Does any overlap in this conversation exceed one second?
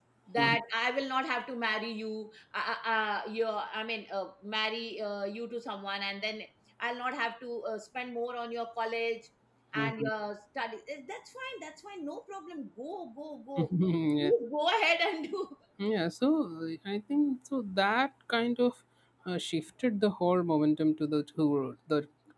No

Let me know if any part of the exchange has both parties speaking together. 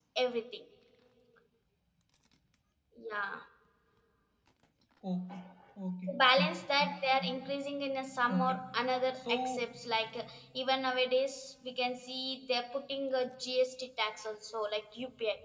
Yes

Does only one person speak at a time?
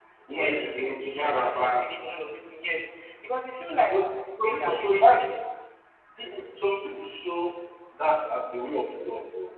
No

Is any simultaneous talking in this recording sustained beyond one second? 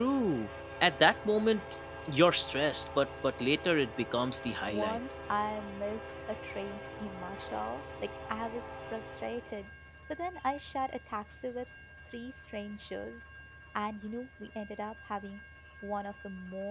No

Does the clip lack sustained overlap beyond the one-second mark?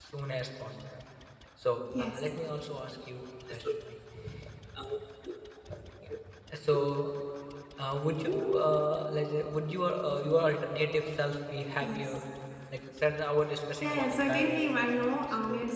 No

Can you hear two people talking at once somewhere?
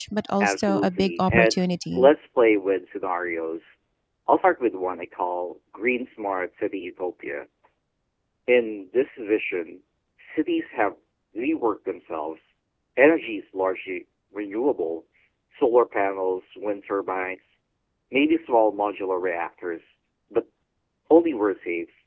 Yes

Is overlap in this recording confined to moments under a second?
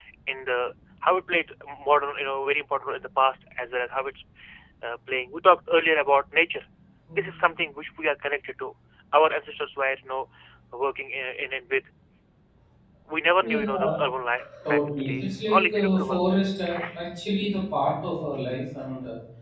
No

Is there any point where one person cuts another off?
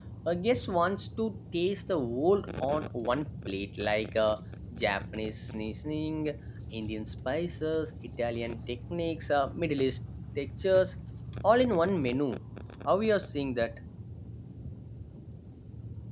No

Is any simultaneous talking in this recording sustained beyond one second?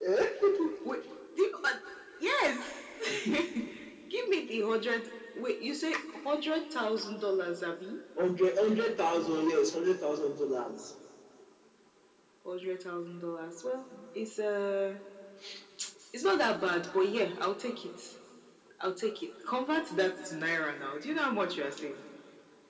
No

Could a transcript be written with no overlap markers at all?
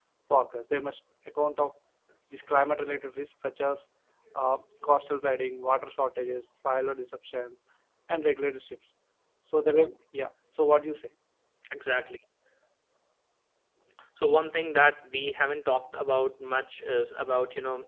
Yes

